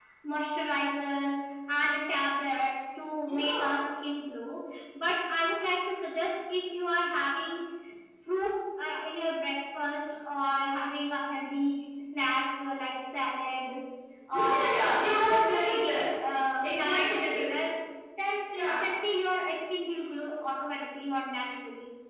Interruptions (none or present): present